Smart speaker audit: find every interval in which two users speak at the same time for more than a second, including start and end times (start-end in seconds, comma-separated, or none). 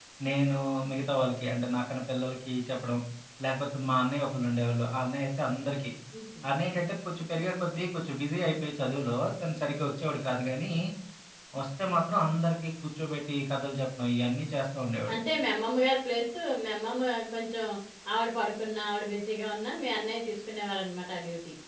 none